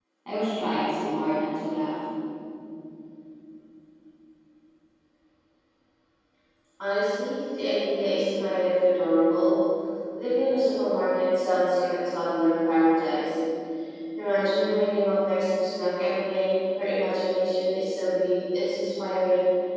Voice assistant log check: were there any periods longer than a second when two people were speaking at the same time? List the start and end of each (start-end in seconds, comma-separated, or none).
none